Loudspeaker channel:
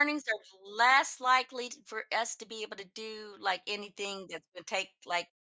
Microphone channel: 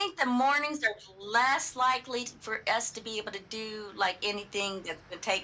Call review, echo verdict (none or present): present